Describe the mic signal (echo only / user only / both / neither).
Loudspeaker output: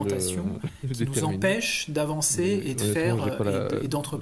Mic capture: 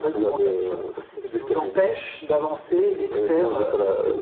echo only